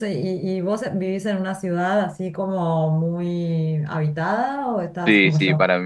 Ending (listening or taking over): taking over